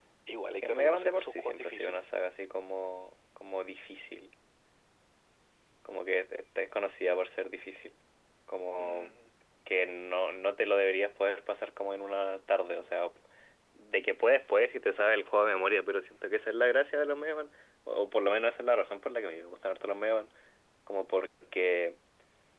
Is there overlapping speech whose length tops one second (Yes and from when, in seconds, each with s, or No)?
Yes, from 0.6 s